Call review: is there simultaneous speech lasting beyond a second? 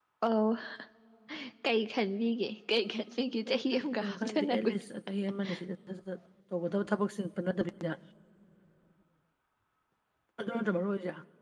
Yes, from 3.5 s

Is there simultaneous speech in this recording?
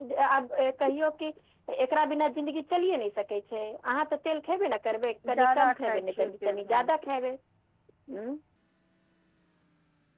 Yes, from 5.2 s

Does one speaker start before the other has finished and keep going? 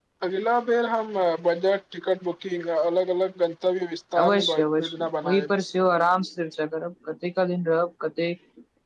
Yes, from 4.2 s

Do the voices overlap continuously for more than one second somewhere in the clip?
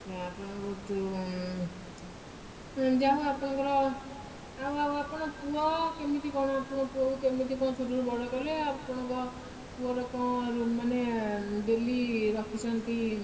No

